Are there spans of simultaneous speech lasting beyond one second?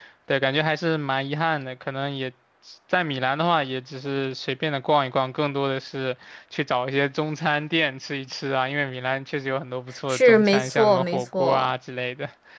Yes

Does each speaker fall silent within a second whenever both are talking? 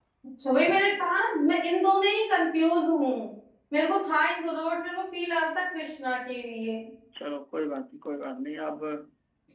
Yes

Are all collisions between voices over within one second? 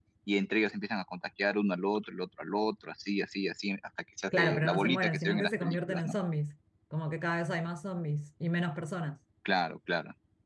No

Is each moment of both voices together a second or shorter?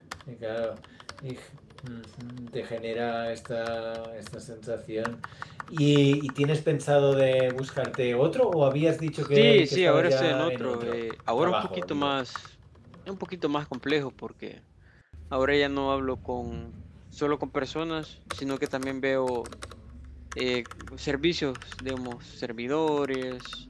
No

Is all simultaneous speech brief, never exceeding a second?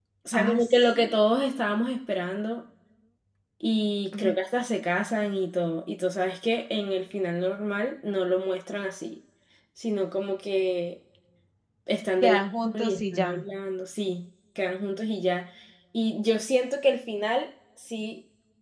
No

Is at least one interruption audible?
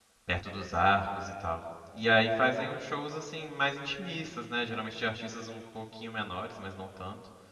No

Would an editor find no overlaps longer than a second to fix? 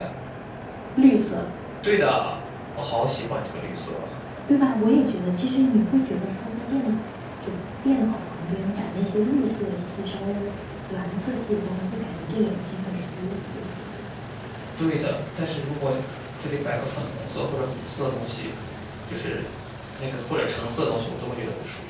Yes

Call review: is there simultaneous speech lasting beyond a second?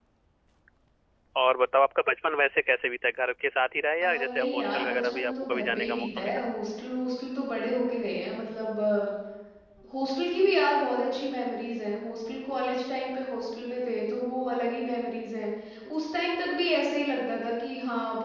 Yes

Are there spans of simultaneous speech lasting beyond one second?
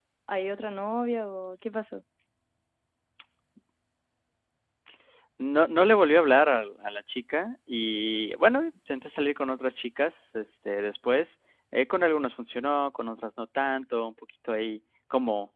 No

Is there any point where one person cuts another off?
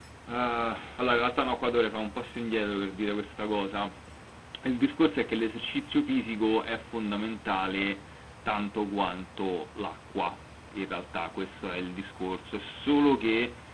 No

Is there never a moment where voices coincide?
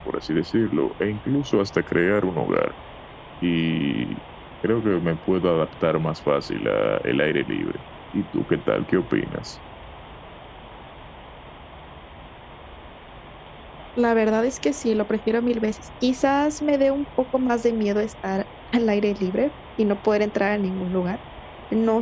Yes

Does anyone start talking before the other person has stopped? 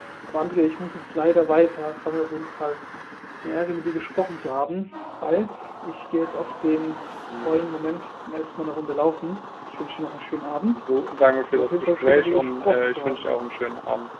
Yes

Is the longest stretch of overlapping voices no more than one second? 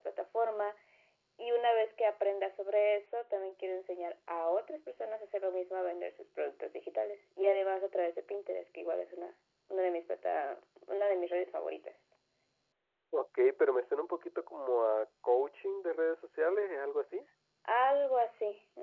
Yes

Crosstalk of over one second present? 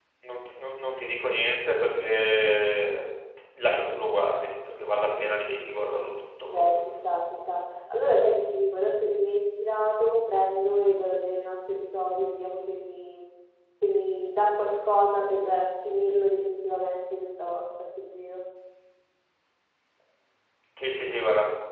No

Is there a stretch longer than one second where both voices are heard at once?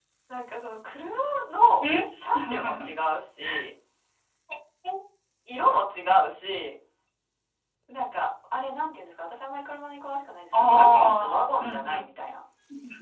Yes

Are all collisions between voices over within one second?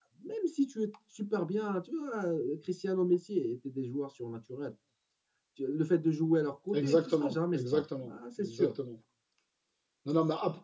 No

